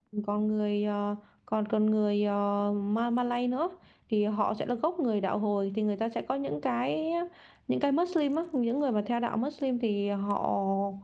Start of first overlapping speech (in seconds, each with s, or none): none